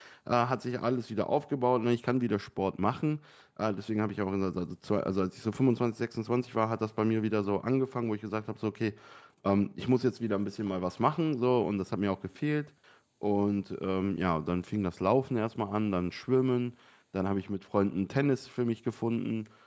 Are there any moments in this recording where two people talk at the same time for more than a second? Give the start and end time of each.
none

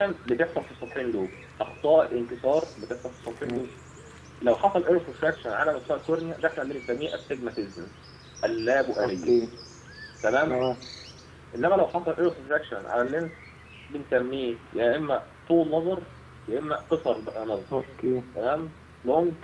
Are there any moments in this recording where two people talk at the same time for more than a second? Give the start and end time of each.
none

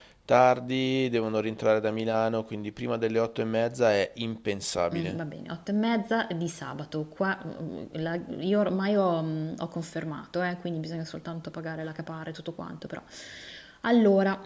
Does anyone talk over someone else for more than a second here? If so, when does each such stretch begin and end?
none

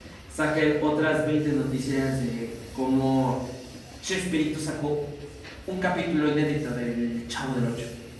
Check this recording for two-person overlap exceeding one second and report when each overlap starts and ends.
none

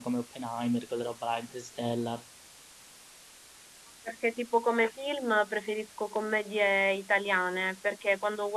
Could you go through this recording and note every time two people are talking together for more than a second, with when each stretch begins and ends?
none

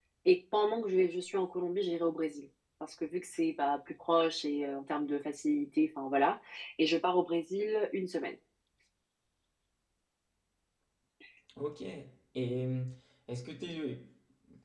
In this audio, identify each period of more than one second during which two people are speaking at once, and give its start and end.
none

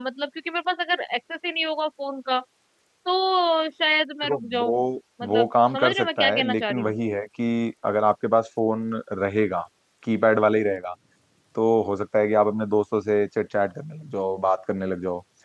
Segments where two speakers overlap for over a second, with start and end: 5.3-6.9

